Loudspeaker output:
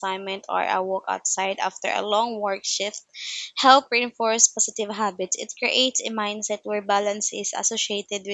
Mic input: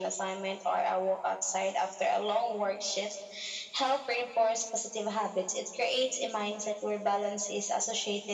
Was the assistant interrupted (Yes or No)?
No